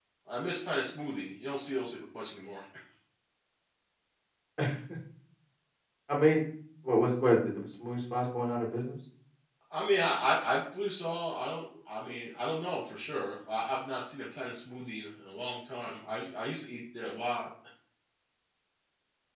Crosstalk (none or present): none